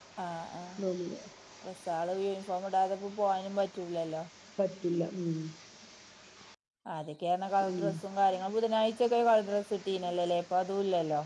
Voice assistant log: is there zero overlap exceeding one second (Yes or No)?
Yes